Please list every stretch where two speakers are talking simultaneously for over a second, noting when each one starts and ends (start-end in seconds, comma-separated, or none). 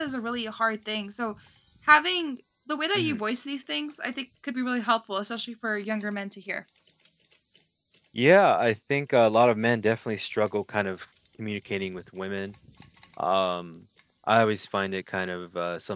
none